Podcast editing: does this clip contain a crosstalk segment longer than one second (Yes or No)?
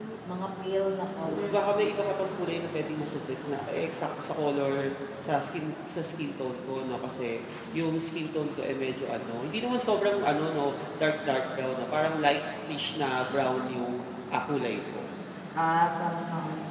No